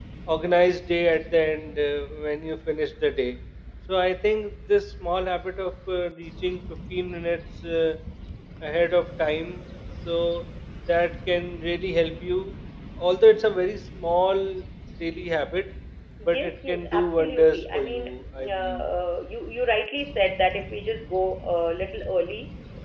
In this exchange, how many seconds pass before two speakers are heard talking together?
16.3 s

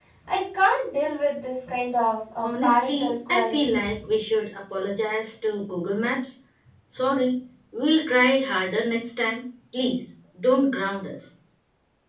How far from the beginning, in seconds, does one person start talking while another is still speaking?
2.4 s

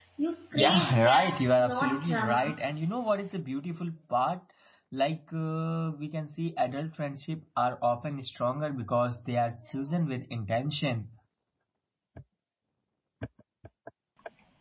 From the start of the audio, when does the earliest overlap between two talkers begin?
0.5 s

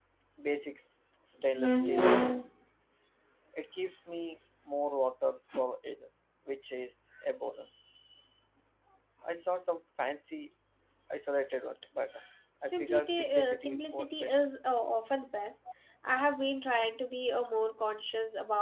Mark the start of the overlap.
12.7 s

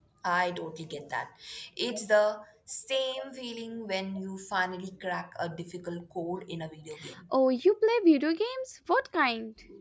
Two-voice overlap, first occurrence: none

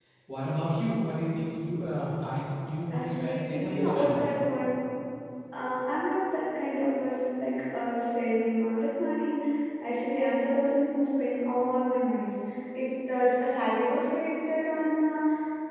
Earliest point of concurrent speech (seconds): 2.9 s

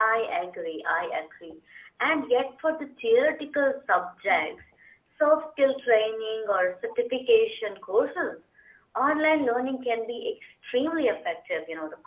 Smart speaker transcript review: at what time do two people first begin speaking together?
none

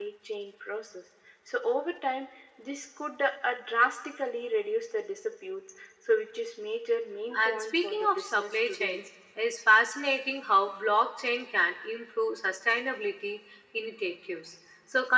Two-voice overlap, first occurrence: 7.3 s

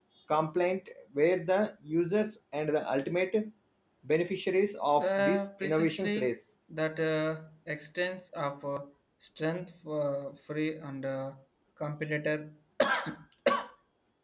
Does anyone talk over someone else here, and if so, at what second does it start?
5.0 s

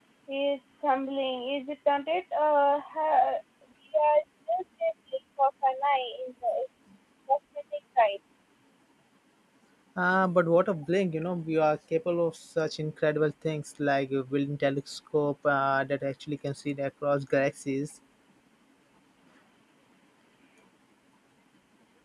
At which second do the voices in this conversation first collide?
none

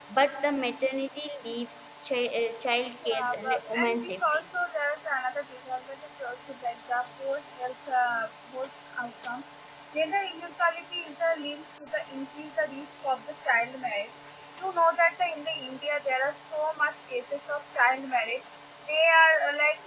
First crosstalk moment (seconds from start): 3.0 s

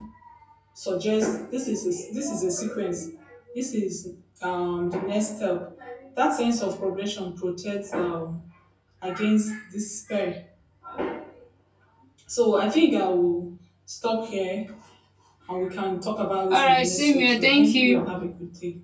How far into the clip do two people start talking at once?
16.5 s

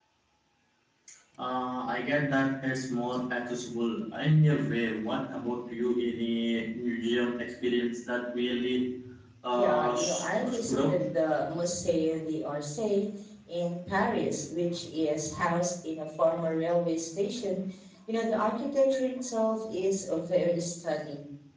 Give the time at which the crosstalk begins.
9.5 s

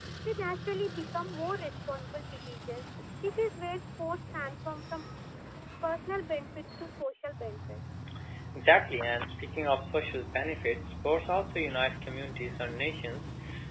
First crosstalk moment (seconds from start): none

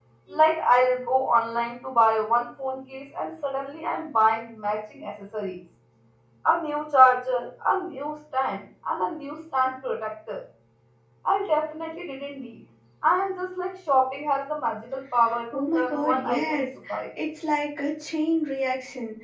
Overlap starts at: 15.5 s

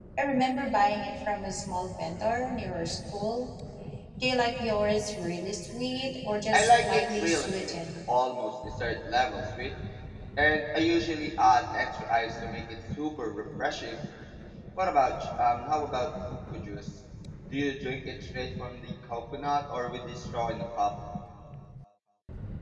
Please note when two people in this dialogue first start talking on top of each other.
6.5 s

